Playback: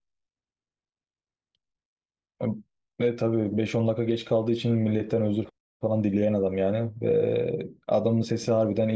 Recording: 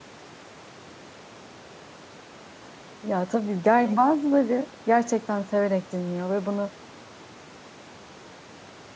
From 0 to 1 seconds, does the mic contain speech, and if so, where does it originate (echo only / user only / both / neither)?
neither